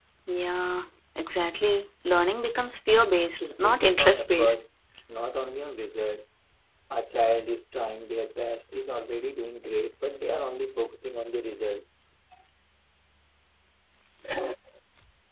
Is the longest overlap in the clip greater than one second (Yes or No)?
Yes